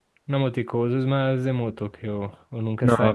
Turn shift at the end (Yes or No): Yes